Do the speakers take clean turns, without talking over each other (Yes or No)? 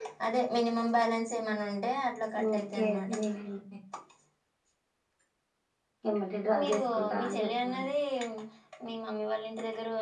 No